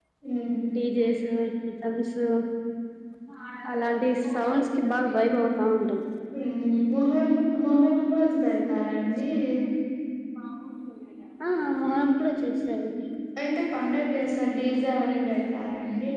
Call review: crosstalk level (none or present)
none